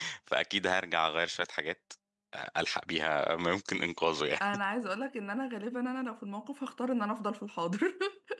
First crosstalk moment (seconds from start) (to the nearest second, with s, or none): none